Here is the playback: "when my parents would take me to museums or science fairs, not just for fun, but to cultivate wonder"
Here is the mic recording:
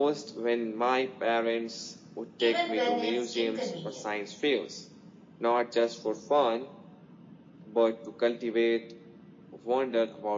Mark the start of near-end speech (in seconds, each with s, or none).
2.4 s